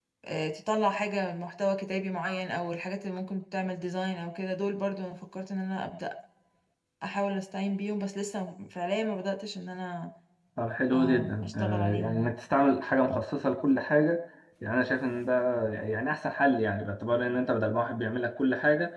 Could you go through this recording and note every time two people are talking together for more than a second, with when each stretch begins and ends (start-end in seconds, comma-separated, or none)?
10.9-12.3